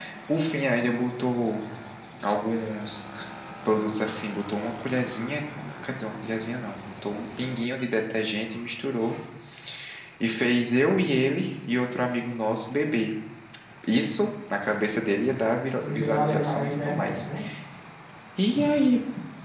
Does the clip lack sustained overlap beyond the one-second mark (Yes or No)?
No